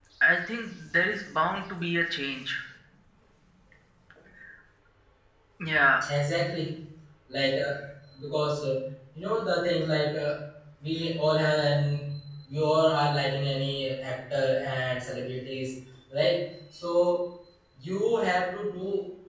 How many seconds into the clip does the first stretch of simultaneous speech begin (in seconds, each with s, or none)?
none